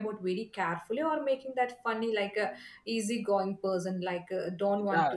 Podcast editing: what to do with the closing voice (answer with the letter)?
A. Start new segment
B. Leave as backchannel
B